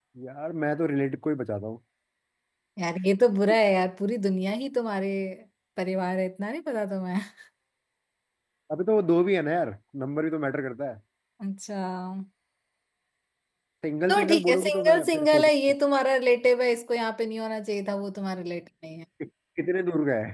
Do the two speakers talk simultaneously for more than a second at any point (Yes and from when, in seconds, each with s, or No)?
Yes, from 14.1 s